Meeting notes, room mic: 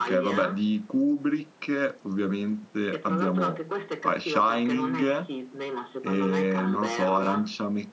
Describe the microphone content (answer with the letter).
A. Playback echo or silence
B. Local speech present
B